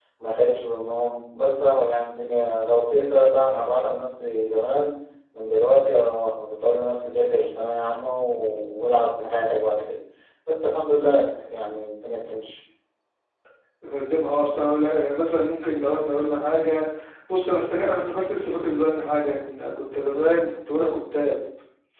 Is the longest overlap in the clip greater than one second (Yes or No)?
No